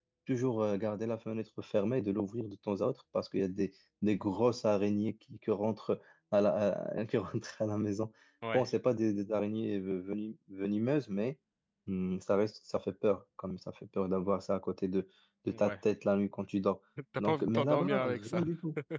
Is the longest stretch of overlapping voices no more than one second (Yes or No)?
No